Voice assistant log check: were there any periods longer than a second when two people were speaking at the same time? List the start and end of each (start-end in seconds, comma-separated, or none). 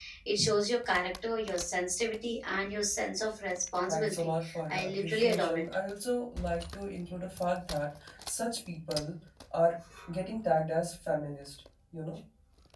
3.8-5.6